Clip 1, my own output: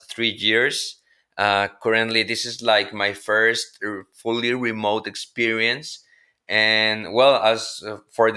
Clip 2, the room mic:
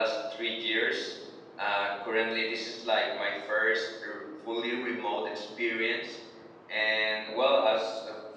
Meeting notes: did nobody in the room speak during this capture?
Yes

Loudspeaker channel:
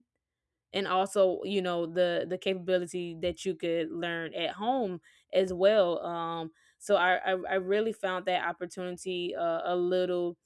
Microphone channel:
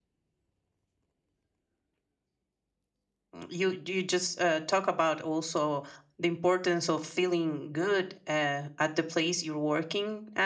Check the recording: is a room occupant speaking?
Yes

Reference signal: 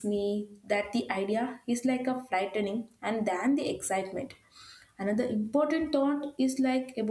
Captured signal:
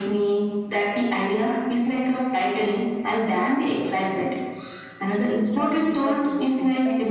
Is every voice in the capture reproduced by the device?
No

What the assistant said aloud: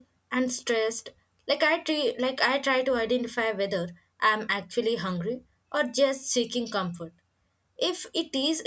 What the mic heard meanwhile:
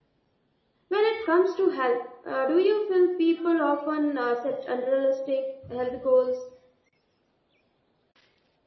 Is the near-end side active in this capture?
Yes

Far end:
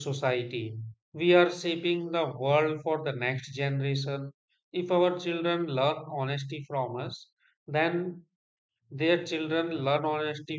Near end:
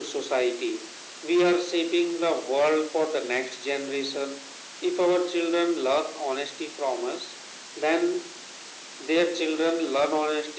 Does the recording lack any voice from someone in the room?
Yes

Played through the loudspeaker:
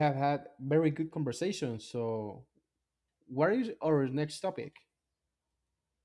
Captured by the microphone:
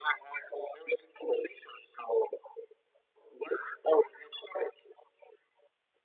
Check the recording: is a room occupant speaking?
No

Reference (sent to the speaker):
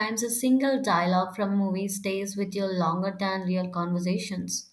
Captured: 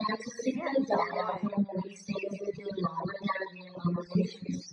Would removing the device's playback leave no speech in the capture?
No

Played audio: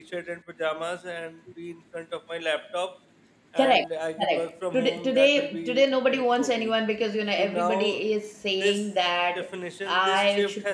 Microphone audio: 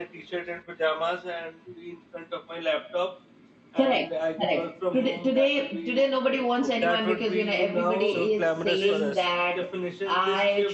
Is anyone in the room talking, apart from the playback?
Yes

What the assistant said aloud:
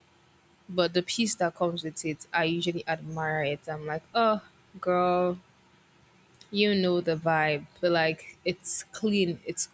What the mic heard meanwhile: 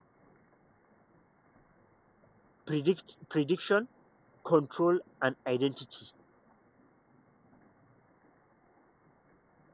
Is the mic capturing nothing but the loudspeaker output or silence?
No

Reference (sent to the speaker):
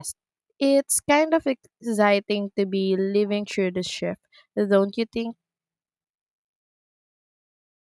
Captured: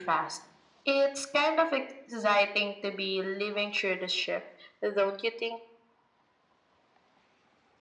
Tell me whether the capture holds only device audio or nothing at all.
Yes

